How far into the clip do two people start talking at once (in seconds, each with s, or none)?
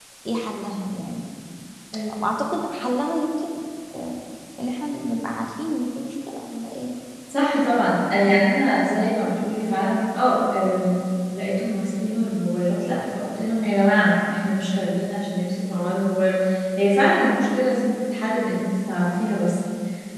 none